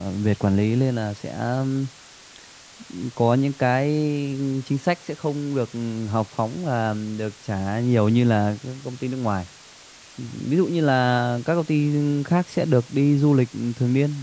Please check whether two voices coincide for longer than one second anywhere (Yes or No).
No